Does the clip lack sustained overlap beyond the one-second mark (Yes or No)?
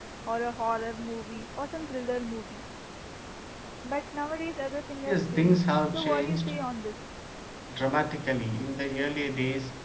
No